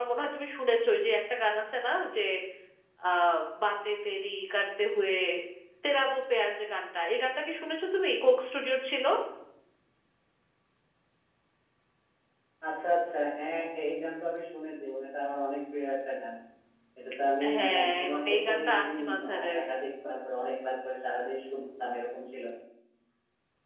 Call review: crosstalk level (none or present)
present